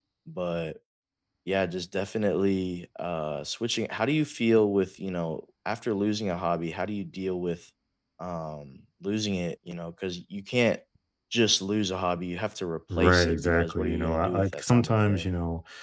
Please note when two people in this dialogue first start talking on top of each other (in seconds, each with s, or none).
12.9 s